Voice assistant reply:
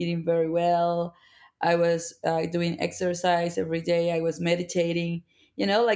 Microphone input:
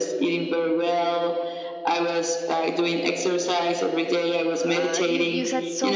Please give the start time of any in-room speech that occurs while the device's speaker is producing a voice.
4.6 s

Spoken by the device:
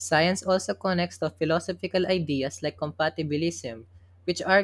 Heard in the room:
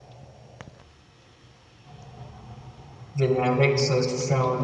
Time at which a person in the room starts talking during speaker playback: 3.1 s

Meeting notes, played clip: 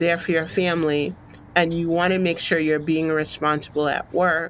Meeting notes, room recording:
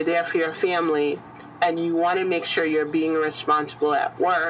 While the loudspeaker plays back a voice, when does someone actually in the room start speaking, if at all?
none

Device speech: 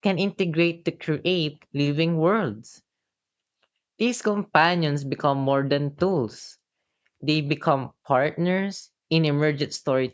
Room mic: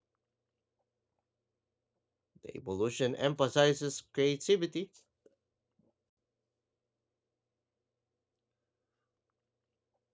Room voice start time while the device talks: 2.4 s

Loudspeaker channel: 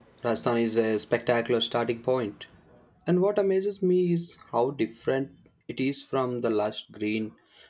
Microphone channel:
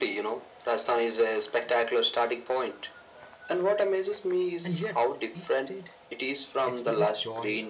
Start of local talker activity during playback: 4.6 s

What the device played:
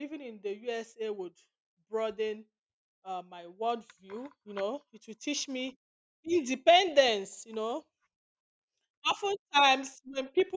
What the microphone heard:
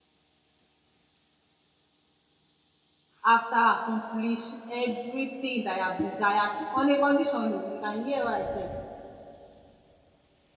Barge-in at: 3.2 s

